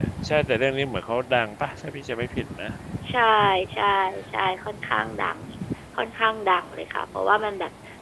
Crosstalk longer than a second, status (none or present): none